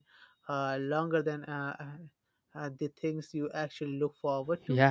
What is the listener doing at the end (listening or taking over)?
taking over